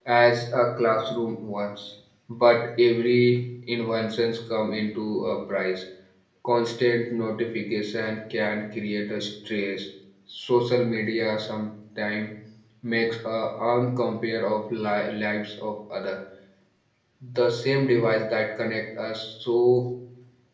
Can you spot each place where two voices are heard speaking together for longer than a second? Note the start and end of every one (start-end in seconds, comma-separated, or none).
none